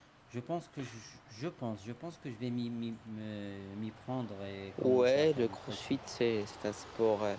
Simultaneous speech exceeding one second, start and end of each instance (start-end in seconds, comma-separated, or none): 4.8-6.0